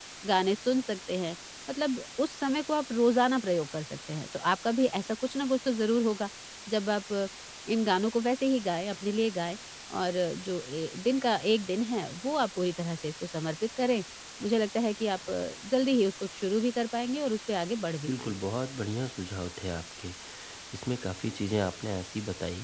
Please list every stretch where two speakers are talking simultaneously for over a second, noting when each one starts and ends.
none

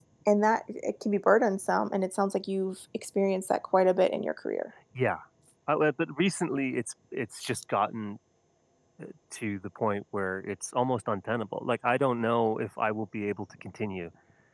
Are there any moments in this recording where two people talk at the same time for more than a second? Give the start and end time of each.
none

